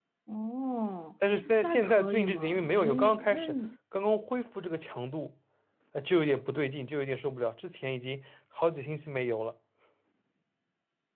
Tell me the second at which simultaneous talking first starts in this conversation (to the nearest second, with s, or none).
2 s